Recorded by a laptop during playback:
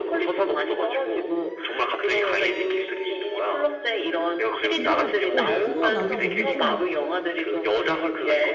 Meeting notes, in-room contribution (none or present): present